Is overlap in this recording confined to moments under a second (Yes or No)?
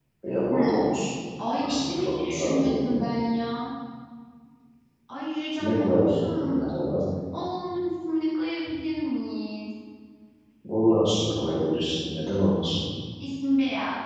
No